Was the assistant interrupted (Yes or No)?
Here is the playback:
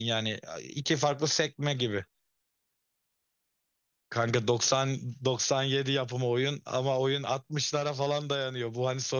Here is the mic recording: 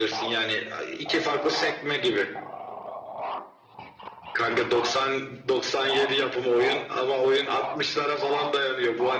No